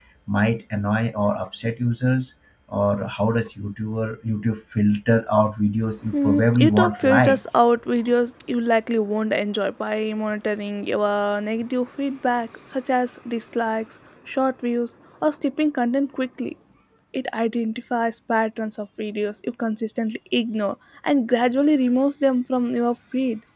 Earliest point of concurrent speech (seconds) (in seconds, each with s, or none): 6.1 s